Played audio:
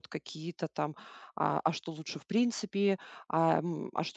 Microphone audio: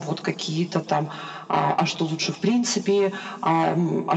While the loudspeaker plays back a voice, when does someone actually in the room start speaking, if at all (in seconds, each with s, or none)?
none